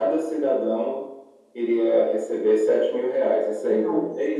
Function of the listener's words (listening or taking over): listening